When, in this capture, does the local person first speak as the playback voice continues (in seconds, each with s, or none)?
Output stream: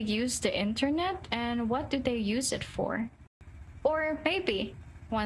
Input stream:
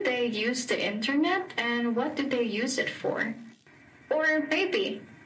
none